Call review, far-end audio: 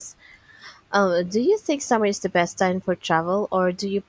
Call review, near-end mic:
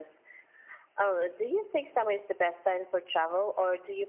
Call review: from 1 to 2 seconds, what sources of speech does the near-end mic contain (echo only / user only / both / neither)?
echo only